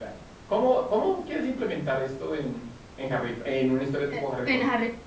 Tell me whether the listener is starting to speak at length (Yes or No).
Yes